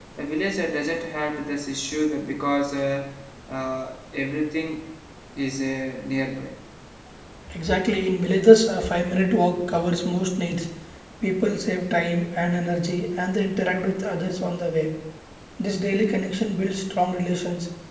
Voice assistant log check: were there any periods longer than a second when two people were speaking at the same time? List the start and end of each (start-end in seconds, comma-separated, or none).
none